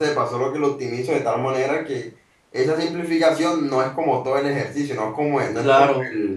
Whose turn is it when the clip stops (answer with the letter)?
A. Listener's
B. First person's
A